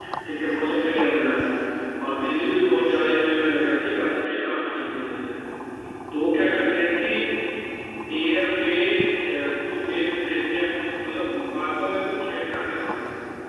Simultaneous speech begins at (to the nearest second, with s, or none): none